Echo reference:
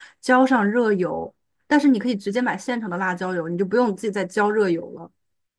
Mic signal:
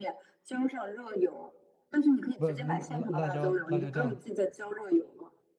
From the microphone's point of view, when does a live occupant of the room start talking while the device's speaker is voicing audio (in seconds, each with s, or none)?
2.4 s